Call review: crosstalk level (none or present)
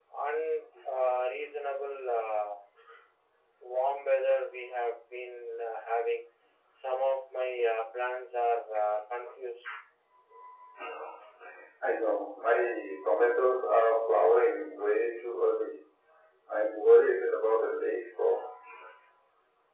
none